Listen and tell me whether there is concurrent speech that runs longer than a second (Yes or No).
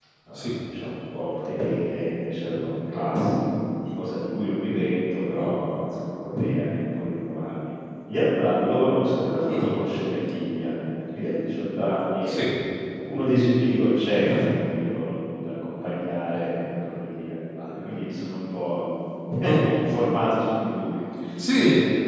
No